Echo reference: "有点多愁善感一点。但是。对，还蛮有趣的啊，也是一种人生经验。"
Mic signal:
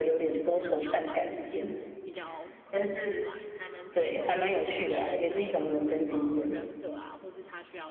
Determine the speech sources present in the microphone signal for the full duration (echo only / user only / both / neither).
both